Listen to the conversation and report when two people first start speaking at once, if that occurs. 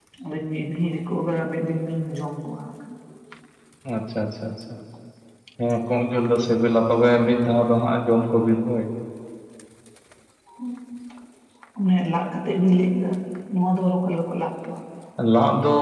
none

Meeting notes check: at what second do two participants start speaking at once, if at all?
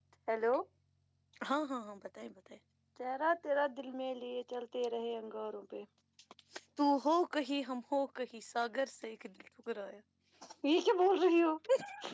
none

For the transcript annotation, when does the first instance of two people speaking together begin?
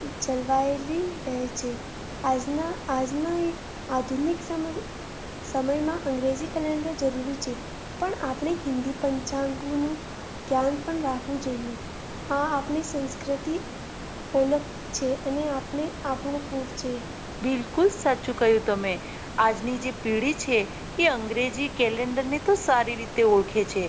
none

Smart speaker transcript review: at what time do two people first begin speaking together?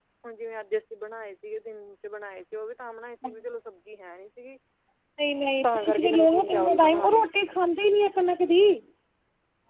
5.6 s

